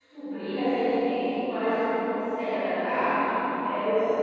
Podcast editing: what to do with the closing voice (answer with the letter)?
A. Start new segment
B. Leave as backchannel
B